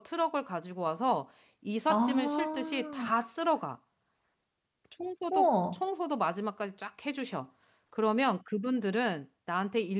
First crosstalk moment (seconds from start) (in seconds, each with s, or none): 1.9 s